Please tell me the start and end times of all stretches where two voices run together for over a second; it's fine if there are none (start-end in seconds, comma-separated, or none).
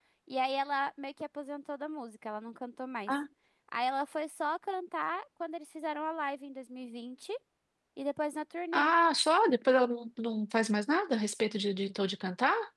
none